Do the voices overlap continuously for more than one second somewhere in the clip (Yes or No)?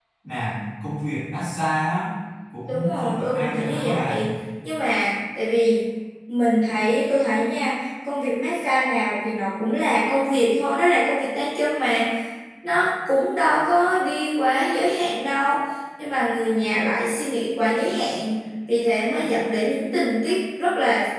Yes